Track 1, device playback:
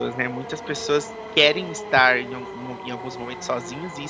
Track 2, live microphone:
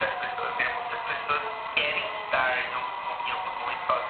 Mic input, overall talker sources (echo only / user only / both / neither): echo only